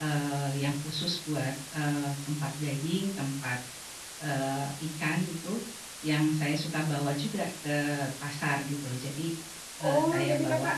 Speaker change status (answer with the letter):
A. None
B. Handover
B